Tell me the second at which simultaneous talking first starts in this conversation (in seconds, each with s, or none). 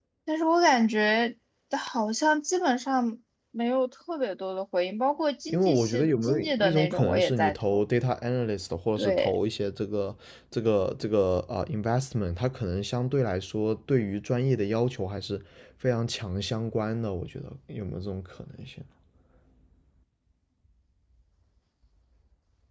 5.5 s